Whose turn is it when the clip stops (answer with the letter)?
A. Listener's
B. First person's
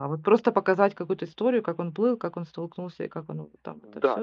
A